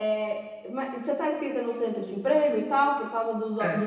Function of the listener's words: listening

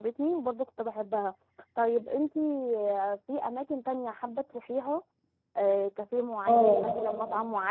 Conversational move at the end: listening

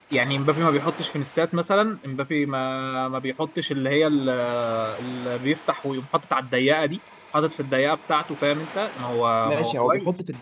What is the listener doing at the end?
taking over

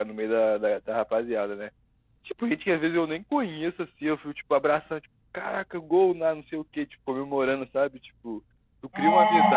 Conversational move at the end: listening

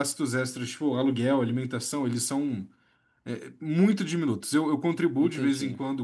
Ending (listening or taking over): listening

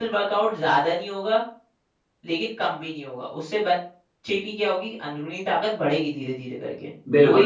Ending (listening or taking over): taking over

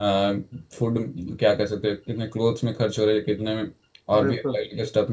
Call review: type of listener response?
listening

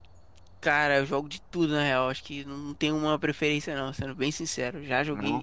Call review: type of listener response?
listening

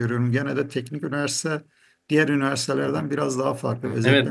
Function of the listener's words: taking over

